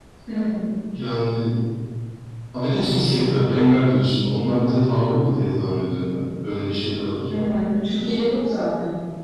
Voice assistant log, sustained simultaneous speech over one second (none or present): none